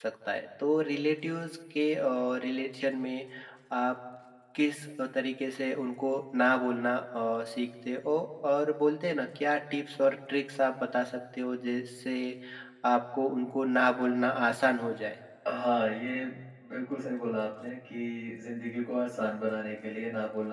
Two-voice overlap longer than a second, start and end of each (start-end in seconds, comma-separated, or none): none